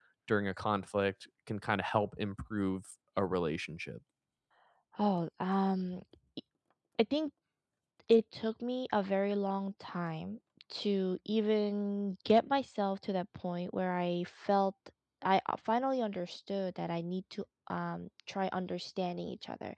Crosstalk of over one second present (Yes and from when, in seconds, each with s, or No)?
No